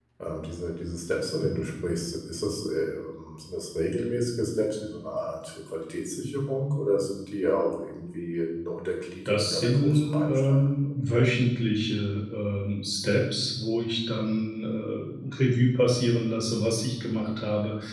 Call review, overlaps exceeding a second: present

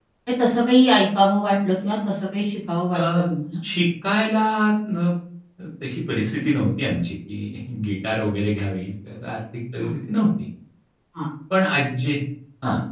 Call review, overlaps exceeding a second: none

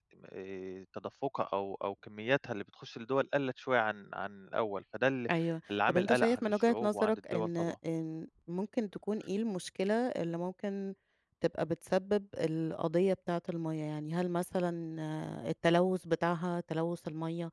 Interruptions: present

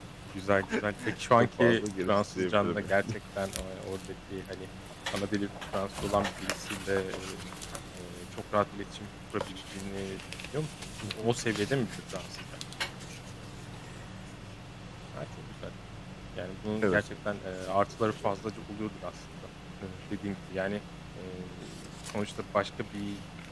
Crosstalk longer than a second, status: present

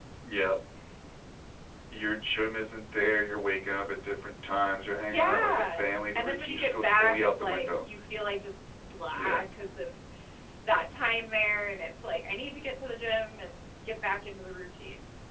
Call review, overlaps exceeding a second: present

